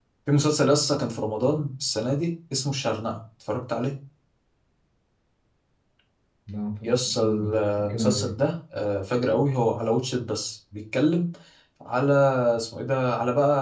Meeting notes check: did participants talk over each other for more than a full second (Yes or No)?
Yes